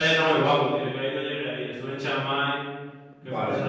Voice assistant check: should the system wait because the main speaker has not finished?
Yes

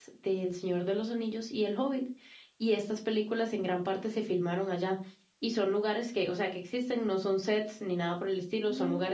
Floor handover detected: No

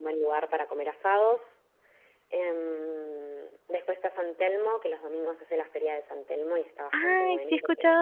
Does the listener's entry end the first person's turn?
Yes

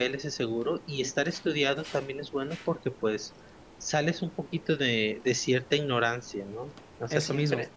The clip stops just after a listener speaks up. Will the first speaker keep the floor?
Yes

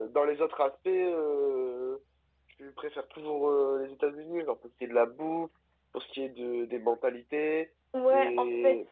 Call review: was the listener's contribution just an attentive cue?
No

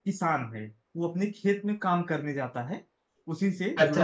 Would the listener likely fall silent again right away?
No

